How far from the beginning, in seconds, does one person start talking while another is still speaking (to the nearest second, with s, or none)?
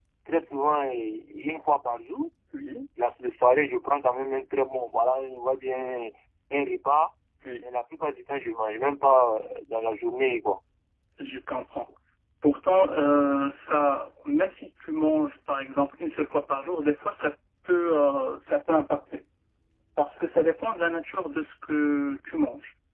none